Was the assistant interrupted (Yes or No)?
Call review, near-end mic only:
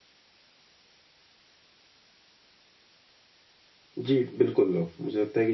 Yes